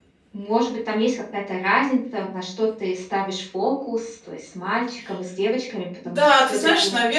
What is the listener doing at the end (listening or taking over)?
taking over